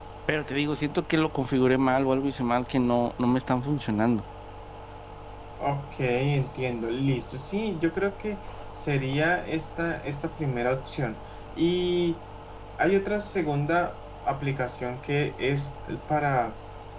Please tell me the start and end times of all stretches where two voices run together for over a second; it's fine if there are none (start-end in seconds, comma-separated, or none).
none